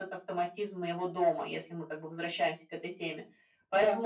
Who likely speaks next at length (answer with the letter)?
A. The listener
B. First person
B